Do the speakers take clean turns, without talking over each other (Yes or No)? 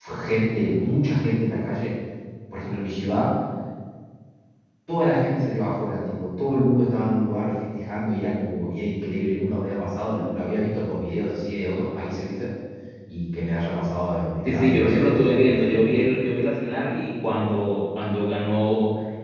No